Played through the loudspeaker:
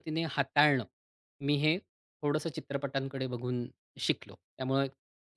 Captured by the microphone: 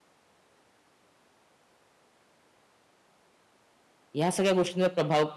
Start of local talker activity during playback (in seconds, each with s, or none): 4.2 s